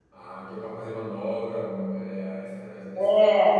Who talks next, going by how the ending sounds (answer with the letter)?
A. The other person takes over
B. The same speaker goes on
A